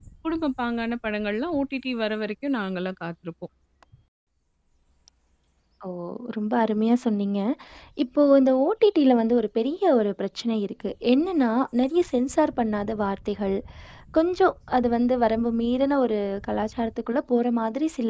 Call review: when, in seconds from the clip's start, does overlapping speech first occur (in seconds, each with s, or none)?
none